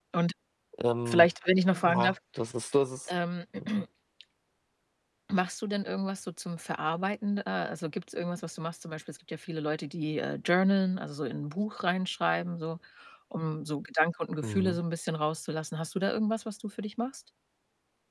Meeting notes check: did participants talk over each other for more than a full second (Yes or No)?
No